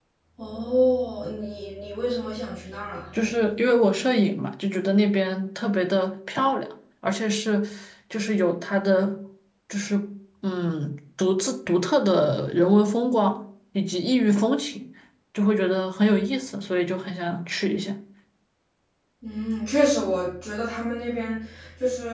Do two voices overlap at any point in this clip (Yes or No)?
No